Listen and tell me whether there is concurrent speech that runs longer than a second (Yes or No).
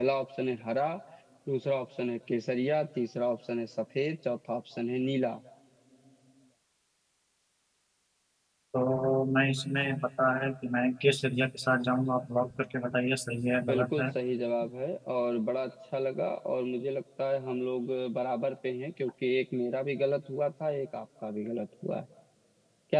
No